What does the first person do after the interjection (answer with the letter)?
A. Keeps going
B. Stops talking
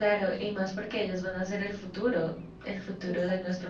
A